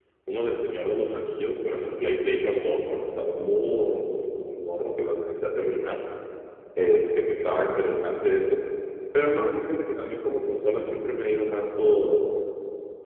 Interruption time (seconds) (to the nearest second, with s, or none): none